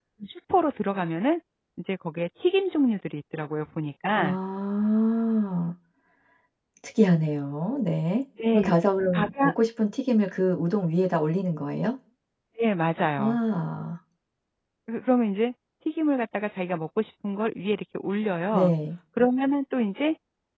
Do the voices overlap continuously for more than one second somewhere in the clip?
No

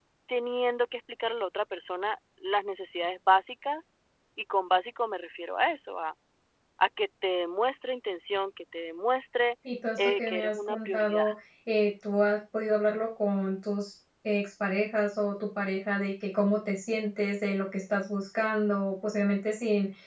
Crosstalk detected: Yes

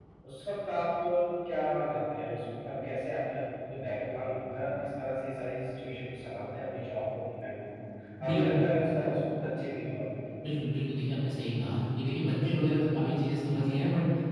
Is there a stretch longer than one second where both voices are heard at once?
No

